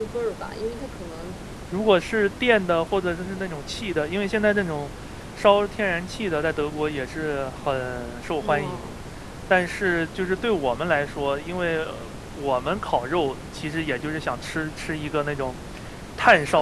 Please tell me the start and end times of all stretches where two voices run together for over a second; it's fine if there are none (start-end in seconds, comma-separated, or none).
none